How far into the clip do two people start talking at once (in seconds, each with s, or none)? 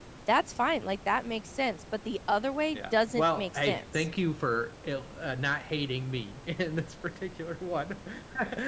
2.7 s